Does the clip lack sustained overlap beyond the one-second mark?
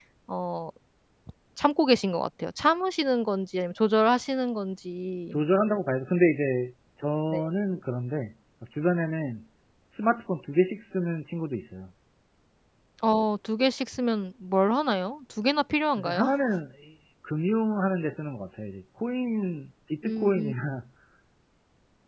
Yes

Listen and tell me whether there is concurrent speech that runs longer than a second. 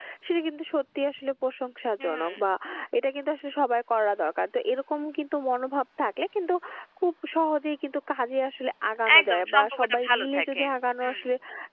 Yes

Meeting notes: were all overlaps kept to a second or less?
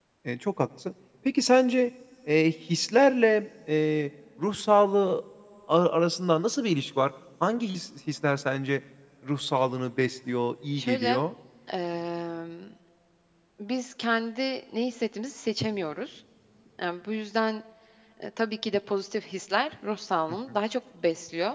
Yes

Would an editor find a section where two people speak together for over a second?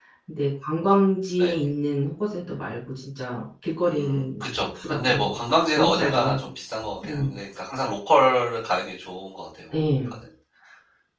Yes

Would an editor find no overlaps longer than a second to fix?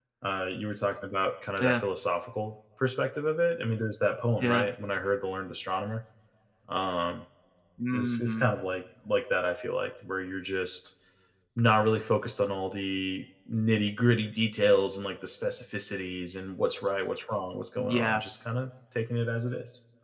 Yes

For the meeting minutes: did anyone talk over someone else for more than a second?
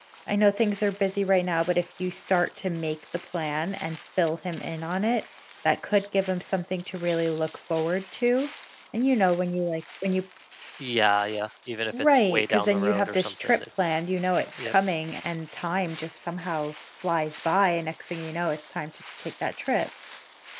Yes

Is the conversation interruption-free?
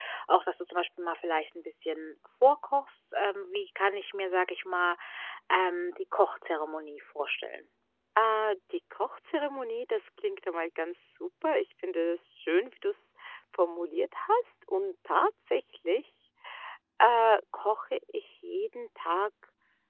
Yes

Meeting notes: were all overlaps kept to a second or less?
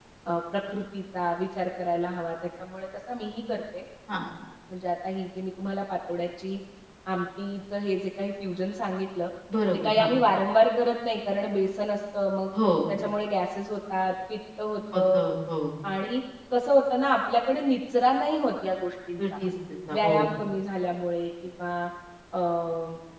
Yes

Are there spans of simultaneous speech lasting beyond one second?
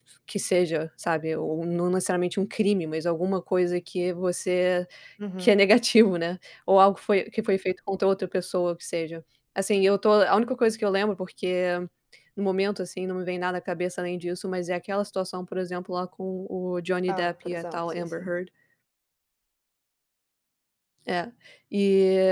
Yes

